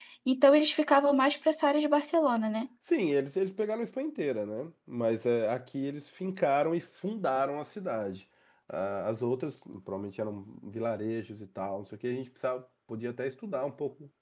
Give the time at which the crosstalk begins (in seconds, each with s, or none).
none